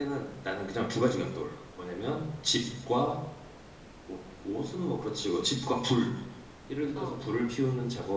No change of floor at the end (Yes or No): Yes